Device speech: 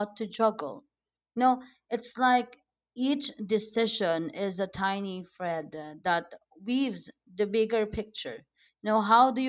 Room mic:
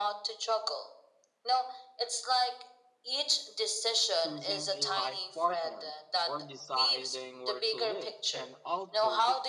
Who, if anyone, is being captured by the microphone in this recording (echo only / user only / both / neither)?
both